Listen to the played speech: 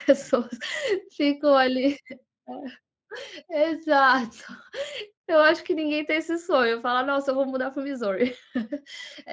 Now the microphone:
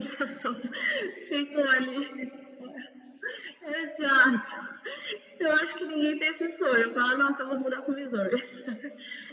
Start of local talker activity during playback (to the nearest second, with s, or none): none